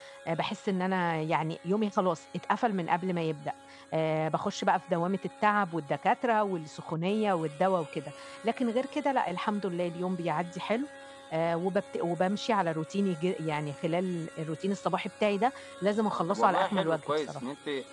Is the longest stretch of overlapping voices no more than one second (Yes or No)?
No